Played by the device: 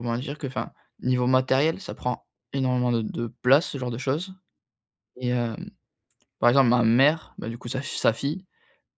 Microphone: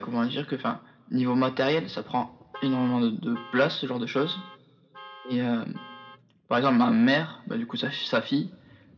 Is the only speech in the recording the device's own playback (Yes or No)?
Yes